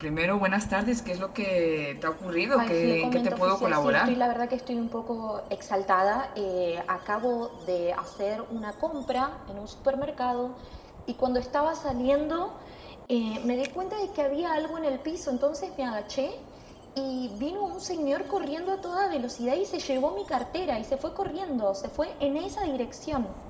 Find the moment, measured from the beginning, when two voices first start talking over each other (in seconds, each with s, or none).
2.3 s